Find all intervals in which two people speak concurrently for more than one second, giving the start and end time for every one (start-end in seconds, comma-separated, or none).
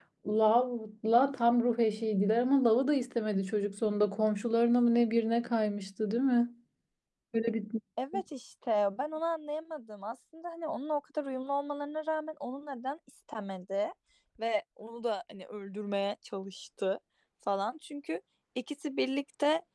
none